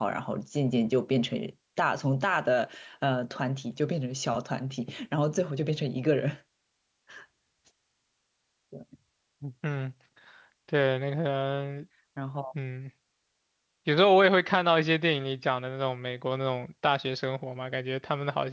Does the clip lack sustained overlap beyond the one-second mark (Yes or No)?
Yes